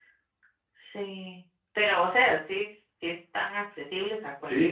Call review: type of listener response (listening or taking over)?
taking over